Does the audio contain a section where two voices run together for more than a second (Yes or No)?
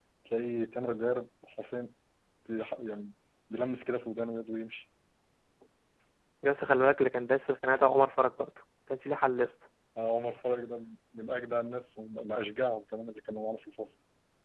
No